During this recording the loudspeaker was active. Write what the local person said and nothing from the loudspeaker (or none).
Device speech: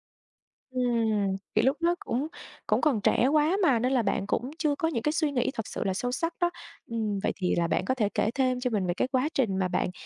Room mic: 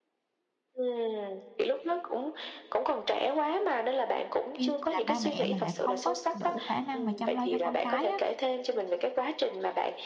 khi là ba mẹ mà lại không có đủ khả năng mà chăm lo cho con cái á